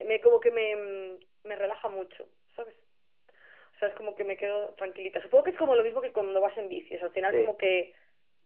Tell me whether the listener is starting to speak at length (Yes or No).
No